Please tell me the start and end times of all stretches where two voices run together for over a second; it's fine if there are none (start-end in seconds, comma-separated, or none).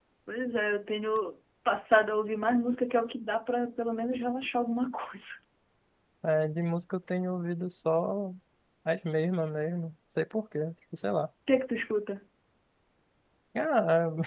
none